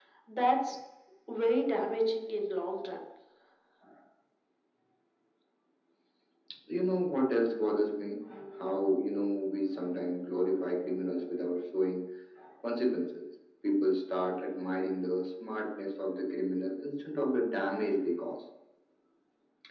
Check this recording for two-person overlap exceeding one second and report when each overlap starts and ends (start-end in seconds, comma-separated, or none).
none